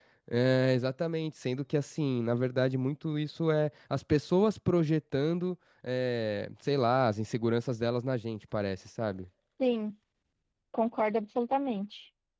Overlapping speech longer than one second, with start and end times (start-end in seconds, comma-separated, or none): none